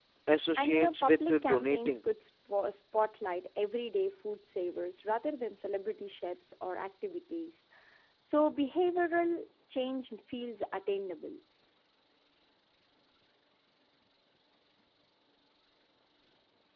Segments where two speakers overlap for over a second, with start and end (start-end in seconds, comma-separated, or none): 0.6-2.0